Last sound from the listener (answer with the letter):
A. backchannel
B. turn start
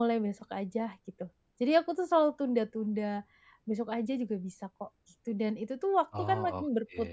A